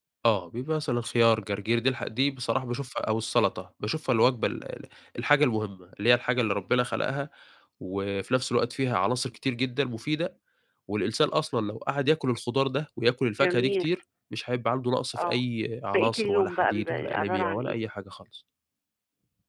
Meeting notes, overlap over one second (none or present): present